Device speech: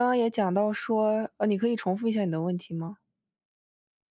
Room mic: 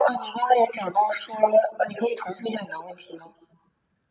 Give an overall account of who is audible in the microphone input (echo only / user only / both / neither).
echo only